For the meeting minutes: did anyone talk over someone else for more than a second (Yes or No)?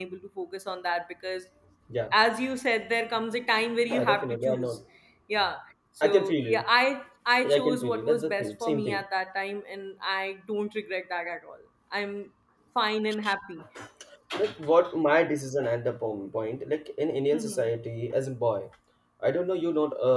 Yes